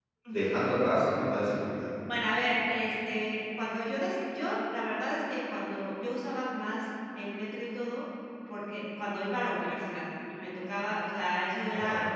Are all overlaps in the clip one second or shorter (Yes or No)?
Yes